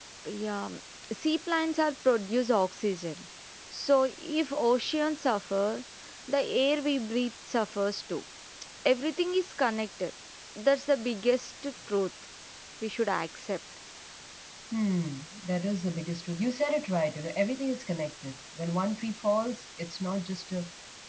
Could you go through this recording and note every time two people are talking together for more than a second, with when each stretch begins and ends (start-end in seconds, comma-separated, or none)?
none